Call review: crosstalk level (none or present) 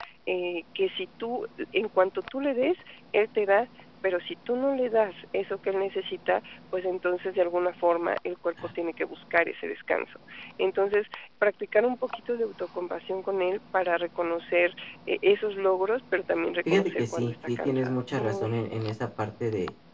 present